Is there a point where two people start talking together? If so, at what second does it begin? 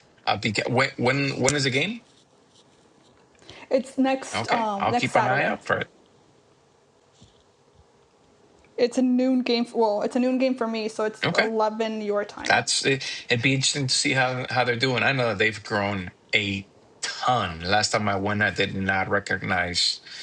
4.3 s

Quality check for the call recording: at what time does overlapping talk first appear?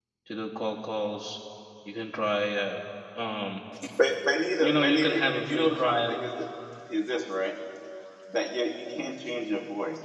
4.6 s

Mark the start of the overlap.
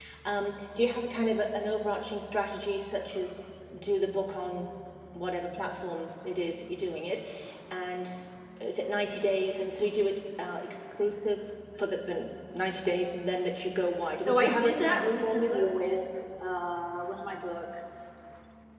14.2 s

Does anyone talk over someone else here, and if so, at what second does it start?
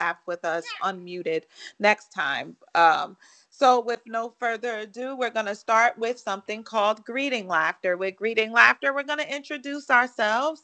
none

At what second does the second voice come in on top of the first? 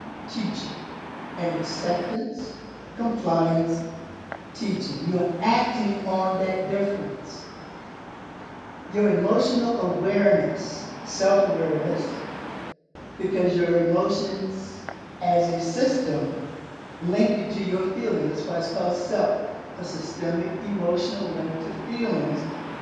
none

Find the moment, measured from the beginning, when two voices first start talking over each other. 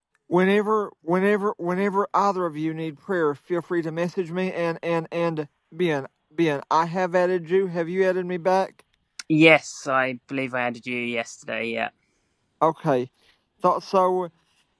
none

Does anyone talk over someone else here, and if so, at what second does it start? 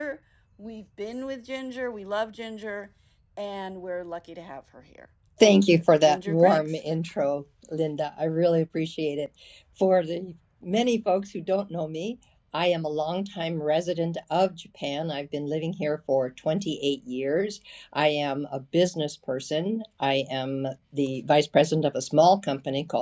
5.4 s

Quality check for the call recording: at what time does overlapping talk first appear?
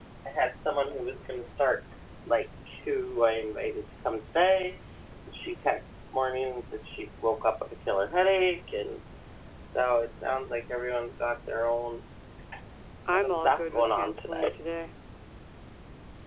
13.1 s

